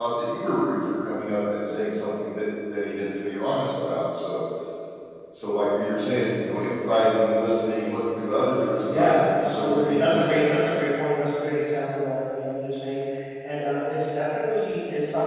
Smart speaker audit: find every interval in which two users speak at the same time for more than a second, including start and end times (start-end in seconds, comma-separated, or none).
8.9-10.6